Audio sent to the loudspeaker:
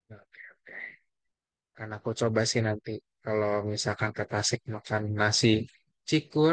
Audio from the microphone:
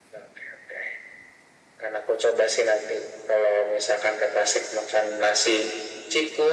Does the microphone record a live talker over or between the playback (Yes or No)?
No